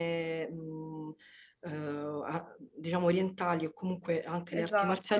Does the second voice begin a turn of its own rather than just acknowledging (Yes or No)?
No